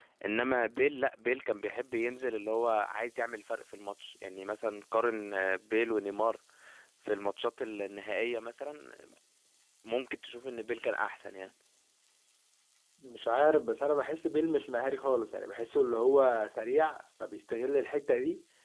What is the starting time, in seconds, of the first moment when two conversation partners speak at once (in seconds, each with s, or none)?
none